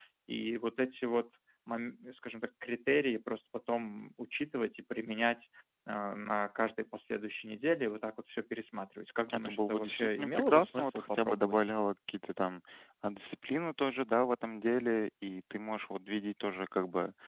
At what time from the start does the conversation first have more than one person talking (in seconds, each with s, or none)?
9.3 s